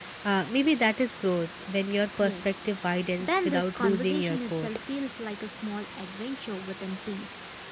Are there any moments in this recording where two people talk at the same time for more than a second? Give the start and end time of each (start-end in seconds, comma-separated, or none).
3.2-4.7